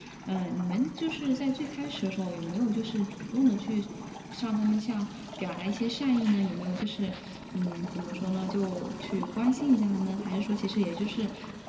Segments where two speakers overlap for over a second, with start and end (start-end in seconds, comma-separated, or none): none